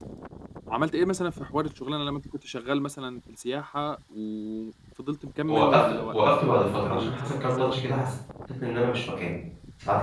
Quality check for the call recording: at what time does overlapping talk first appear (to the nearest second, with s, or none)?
5 s